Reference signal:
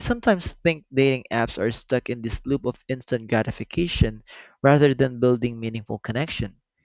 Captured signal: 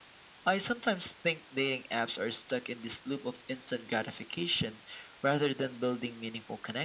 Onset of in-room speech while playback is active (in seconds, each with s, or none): none